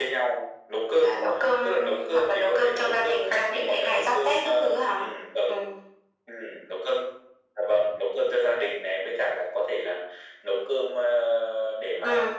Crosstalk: present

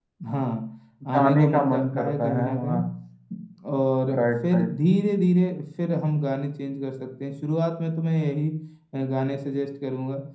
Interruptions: present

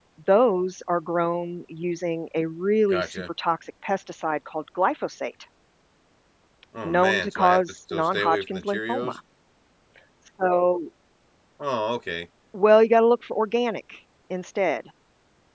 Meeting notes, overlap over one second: present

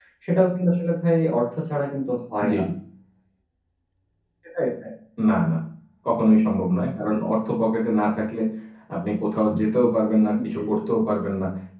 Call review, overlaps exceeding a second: none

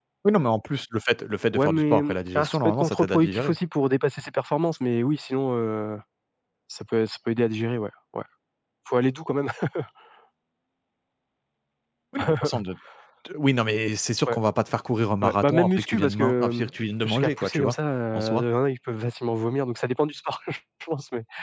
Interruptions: present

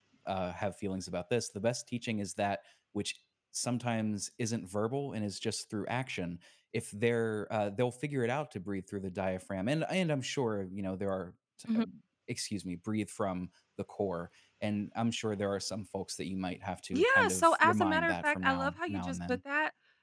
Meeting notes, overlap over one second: present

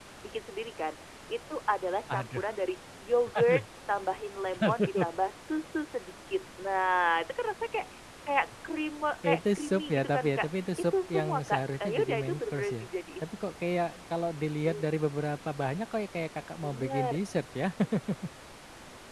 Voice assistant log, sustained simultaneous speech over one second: present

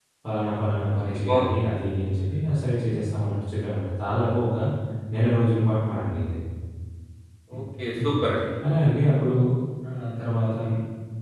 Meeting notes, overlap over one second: none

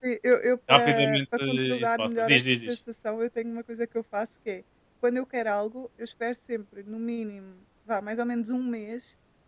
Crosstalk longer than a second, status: present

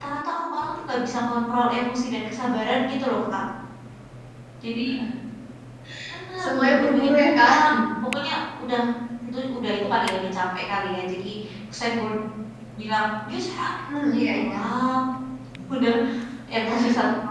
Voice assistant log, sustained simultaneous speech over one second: present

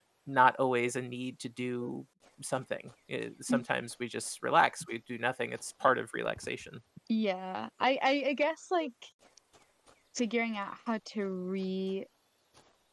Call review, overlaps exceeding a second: none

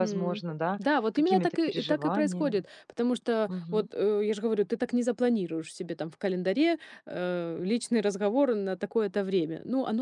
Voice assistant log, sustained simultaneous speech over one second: present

